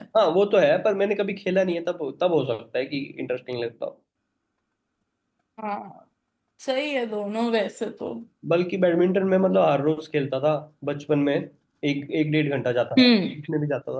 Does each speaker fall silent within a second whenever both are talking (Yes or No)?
Yes